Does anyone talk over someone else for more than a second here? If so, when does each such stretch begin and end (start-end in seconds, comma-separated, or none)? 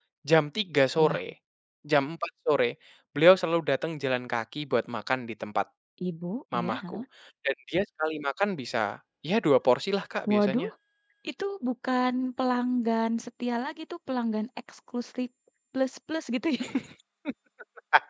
none